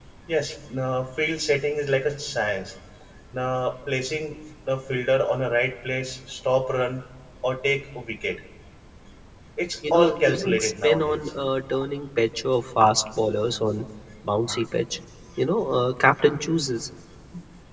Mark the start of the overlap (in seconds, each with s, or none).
9.9 s